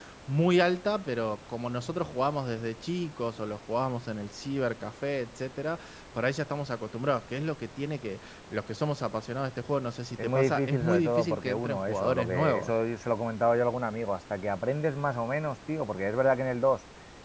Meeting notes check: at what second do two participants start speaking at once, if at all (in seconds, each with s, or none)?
10.2 s